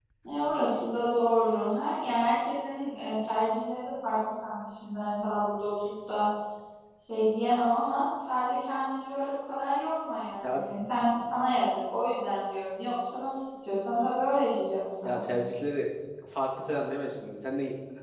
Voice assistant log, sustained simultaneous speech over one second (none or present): none